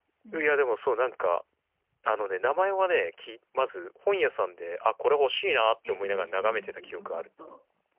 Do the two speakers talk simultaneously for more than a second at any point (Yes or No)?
Yes